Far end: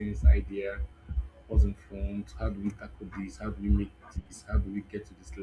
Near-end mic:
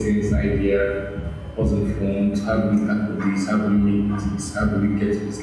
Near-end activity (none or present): none